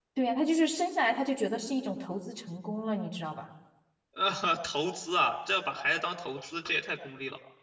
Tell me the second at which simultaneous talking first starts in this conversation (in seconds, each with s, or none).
none